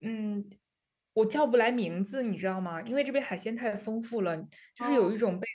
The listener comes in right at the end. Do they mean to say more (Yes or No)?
No